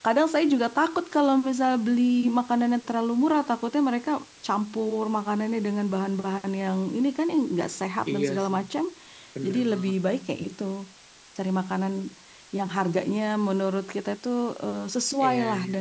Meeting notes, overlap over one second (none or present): none